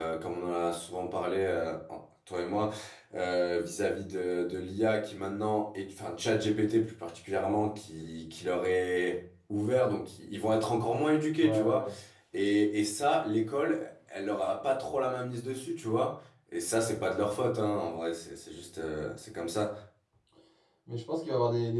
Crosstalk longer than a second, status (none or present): none